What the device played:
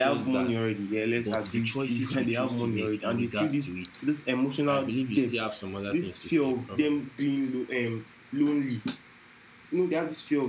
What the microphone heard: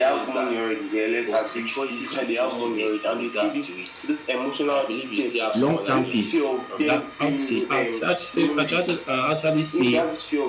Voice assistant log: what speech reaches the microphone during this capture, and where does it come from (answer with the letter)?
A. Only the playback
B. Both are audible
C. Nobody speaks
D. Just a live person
B